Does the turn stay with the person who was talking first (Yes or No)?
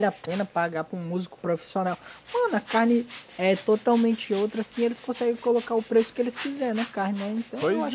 No